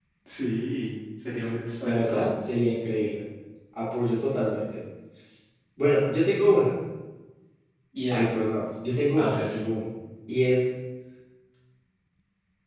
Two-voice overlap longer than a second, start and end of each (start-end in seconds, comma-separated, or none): none